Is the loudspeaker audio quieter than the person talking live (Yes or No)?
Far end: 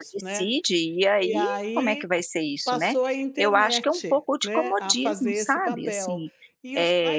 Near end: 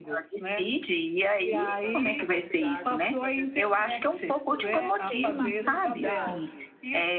No